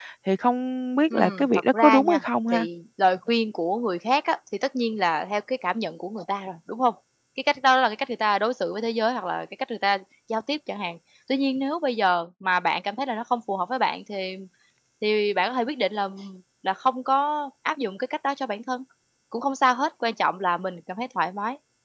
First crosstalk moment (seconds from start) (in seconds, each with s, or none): 1.1 s